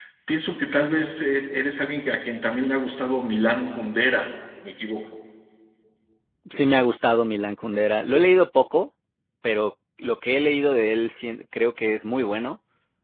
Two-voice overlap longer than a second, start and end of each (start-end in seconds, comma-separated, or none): none